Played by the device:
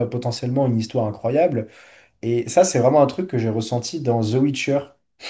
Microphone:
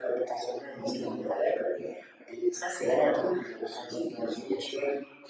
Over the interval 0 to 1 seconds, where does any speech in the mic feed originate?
echo only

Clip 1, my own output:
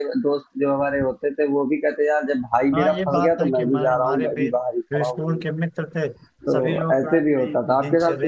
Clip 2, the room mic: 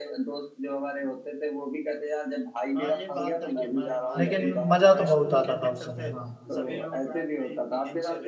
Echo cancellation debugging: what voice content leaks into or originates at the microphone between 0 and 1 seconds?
echo only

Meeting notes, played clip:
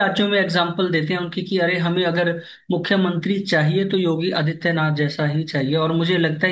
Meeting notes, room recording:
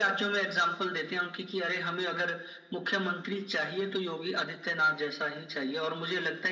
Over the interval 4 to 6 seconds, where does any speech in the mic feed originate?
echo only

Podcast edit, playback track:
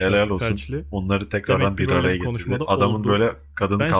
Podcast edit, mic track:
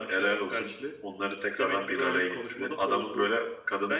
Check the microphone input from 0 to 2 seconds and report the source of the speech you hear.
echo only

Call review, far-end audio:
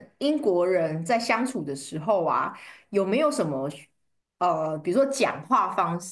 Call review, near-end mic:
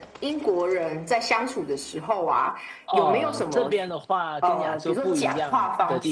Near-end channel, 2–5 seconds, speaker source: both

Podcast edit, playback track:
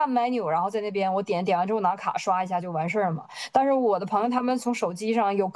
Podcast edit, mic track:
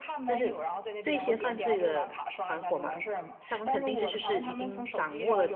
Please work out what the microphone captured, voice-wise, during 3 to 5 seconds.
both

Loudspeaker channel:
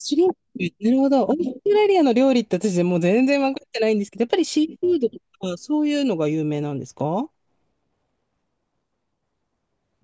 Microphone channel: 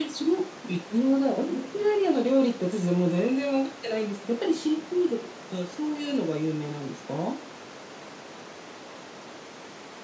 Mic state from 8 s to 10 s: neither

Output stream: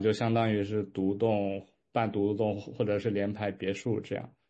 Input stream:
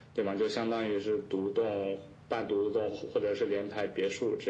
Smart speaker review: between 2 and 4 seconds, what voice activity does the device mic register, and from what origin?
echo only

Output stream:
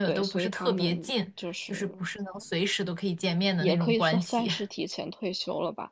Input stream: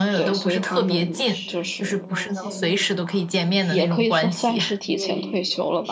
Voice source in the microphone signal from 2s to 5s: both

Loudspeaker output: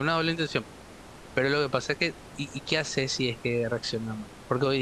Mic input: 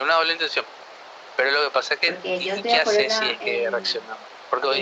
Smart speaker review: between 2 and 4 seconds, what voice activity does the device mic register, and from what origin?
both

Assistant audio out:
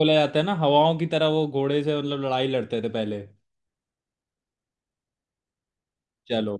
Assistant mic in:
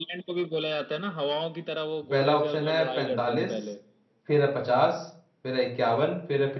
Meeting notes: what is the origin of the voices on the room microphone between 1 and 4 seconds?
both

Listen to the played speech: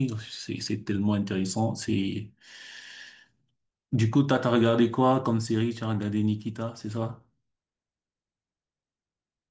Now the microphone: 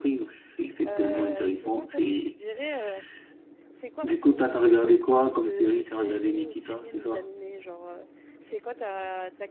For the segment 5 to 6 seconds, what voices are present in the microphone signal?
both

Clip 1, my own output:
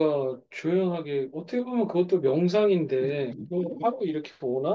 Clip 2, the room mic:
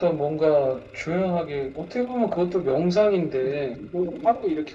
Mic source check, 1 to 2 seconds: echo only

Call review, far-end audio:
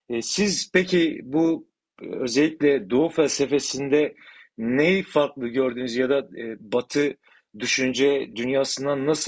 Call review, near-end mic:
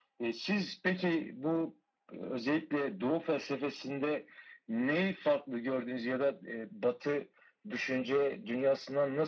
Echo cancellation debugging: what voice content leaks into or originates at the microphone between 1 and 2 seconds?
echo only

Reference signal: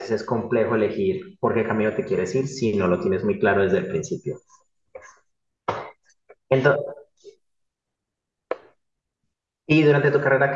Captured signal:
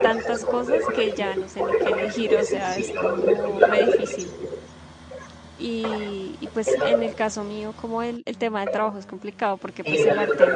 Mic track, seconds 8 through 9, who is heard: user only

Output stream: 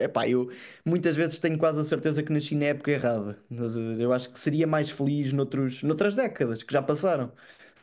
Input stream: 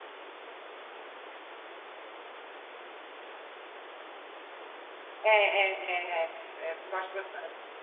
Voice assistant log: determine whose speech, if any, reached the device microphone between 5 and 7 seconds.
user only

